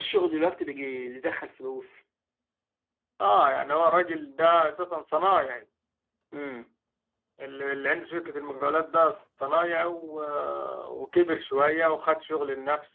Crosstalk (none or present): none